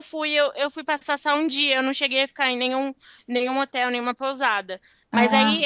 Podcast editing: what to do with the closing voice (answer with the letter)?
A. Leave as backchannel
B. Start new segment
A